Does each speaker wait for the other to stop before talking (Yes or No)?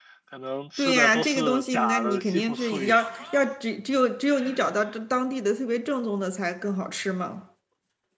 No